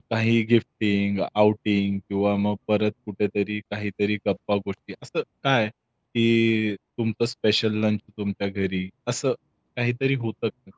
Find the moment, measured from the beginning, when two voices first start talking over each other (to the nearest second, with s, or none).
none